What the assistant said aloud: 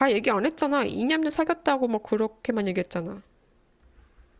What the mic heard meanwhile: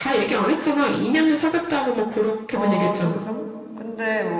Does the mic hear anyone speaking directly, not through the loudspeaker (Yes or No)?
Yes